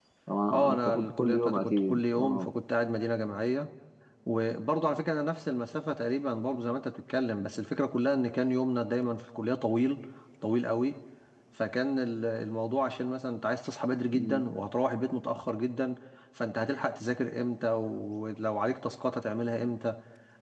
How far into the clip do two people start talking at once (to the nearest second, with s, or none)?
1 s